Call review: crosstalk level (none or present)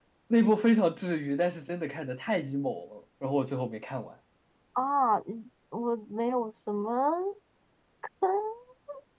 none